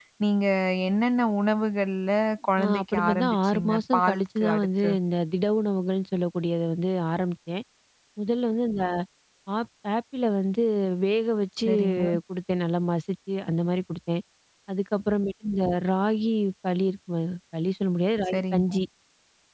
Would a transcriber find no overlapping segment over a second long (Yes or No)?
No